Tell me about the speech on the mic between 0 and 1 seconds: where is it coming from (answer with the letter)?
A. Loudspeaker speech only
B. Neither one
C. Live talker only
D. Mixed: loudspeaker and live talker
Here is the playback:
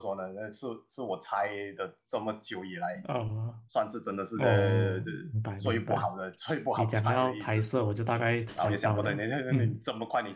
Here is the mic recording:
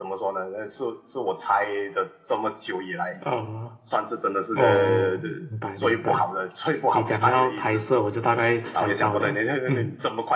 A